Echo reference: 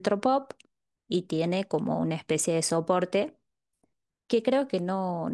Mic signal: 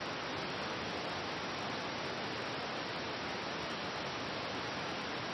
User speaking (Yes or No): No